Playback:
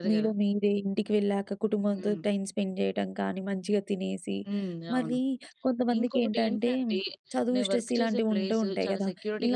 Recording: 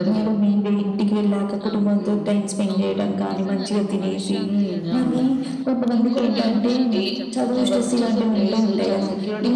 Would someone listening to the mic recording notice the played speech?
Yes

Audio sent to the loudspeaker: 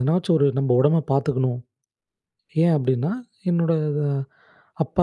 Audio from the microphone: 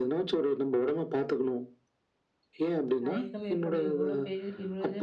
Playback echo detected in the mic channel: Yes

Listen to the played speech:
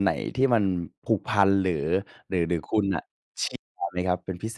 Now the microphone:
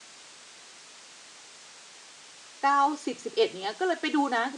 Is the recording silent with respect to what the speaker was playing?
Yes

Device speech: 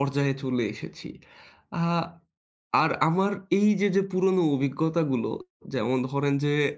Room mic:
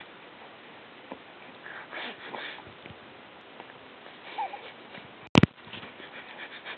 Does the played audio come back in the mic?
No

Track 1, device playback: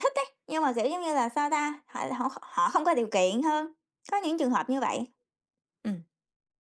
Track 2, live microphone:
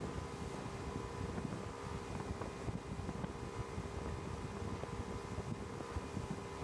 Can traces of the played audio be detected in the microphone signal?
No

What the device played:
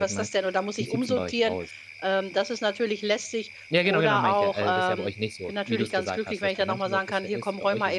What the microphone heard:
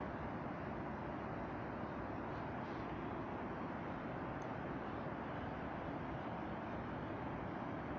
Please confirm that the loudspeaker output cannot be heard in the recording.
Yes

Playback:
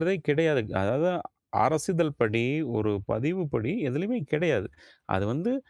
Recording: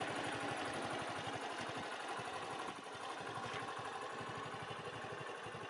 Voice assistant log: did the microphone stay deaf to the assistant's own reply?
Yes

